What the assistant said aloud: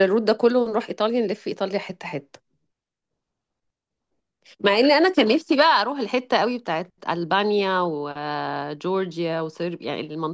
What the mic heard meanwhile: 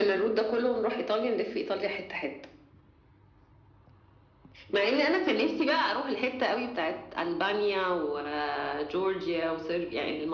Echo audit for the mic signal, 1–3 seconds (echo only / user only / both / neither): echo only